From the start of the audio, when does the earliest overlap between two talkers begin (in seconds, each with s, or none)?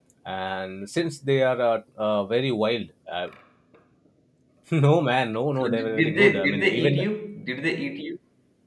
5.6 s